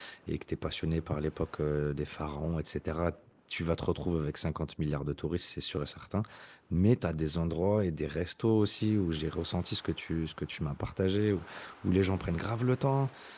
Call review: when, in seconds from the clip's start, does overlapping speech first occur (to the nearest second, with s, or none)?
none